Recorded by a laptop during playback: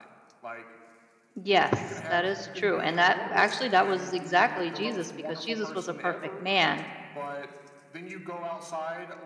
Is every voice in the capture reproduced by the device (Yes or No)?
No